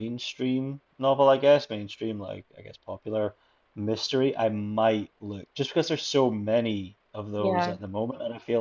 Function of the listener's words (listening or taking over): listening